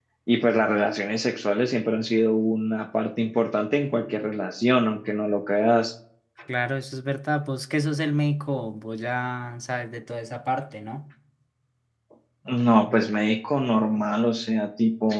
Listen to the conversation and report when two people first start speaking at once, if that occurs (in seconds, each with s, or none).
none